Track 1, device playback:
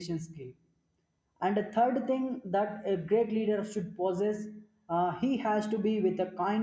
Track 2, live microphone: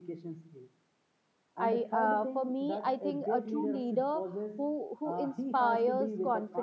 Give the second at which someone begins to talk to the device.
1.6 s

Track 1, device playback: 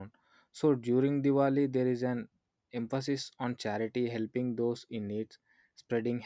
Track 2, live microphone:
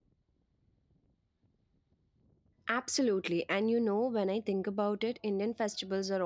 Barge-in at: 2.7 s

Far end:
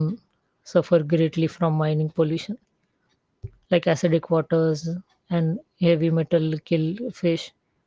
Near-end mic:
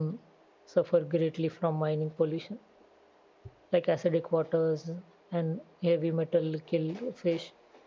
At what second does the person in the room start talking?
none

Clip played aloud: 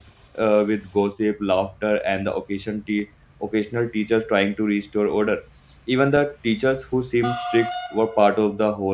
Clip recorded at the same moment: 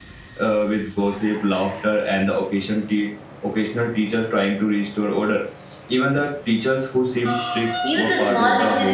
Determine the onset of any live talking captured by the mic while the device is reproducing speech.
7.8 s

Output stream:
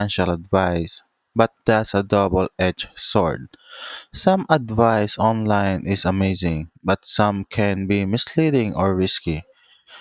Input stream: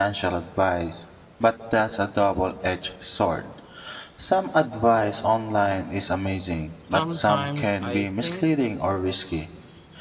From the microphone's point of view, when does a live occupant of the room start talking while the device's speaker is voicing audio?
6.7 s

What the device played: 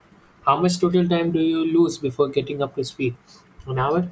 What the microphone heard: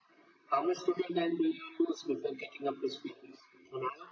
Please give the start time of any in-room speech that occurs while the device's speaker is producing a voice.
none

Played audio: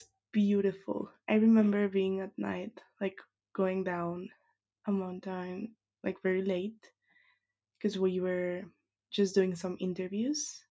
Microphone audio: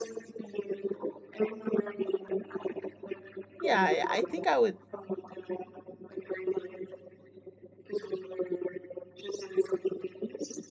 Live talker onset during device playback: 3.6 s

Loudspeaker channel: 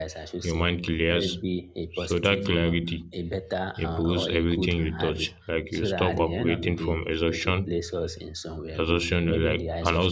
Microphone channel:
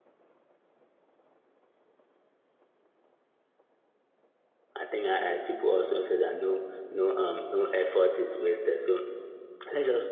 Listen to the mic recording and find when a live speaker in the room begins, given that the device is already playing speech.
4.7 s

